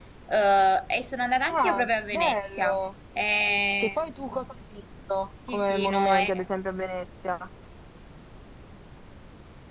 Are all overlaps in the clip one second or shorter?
No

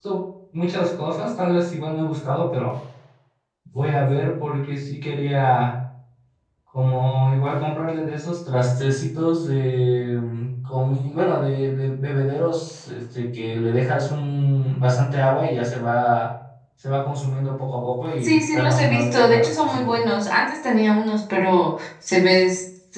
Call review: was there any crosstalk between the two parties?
Yes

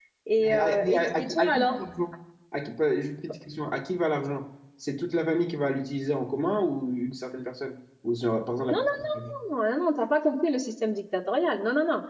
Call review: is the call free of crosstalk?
No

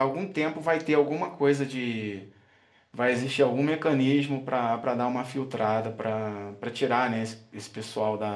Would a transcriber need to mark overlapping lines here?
No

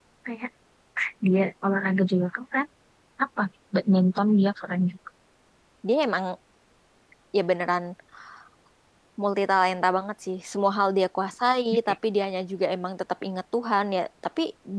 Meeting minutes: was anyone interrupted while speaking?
No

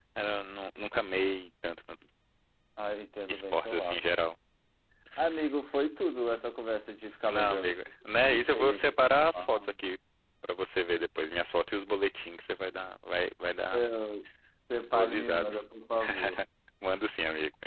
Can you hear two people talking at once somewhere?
Yes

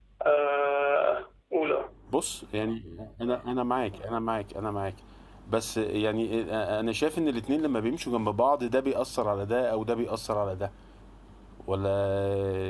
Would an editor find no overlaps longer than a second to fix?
Yes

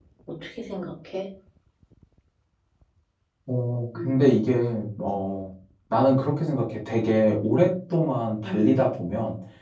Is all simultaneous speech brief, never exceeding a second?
Yes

